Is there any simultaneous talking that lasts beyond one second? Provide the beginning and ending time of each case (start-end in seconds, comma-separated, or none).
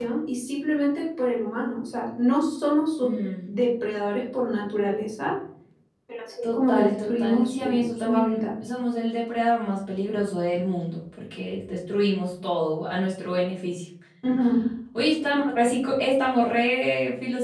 6.4-8.4